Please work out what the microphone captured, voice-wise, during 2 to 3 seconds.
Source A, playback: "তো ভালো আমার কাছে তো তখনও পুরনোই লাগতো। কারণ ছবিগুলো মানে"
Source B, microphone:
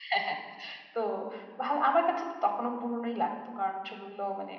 echo only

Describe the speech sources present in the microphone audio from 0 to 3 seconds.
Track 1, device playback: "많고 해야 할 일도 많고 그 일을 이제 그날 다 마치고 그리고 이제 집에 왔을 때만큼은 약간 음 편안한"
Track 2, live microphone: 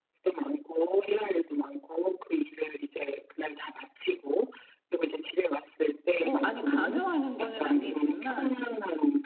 echo only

